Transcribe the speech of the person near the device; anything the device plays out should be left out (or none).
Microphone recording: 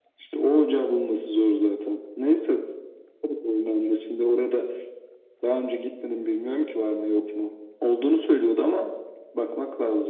none